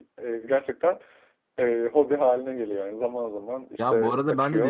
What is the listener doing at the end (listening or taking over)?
taking over